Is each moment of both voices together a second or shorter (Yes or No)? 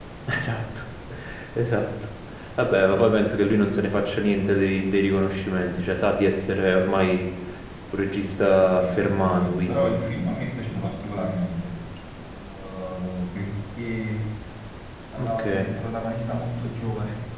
No